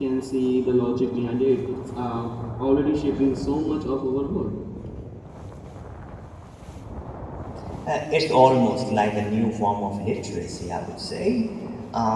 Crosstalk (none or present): none